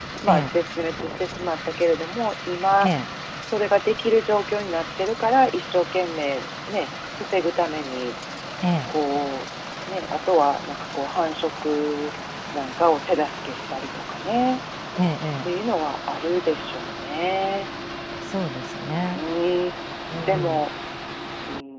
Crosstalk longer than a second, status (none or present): none